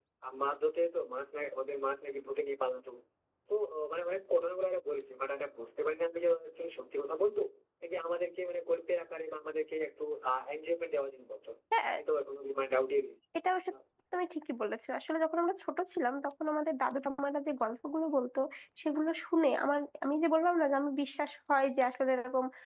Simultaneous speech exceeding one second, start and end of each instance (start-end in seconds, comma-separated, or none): none